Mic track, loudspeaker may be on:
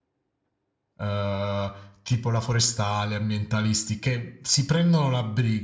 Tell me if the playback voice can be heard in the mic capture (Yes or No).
No